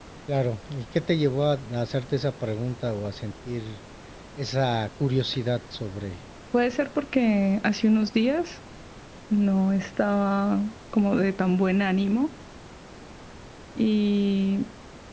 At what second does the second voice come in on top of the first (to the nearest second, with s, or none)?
none